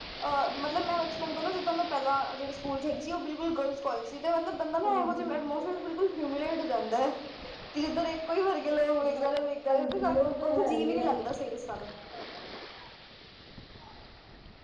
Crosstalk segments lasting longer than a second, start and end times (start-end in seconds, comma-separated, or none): 9.7-11.1